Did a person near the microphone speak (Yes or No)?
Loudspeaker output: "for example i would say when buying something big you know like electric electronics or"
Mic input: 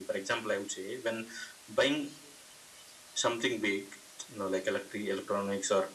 No